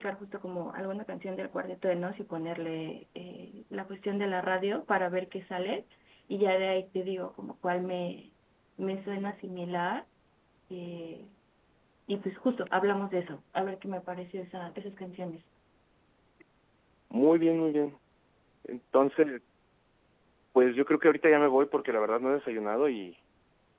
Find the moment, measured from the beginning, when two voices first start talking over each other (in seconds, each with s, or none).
none